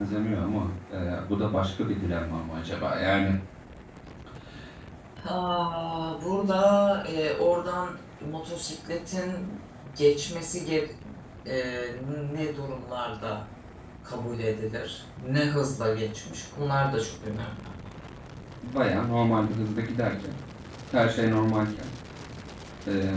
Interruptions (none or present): none